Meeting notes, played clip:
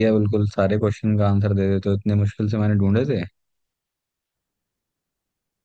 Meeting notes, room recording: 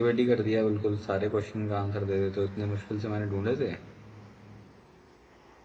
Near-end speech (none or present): none